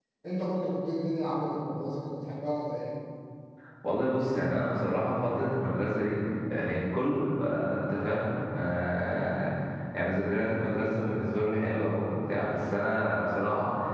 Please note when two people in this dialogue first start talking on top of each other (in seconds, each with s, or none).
none